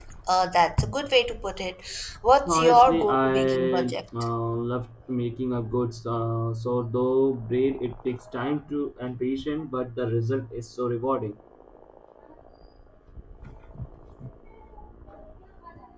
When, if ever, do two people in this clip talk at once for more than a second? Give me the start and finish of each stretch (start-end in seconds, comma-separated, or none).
2.5-4.0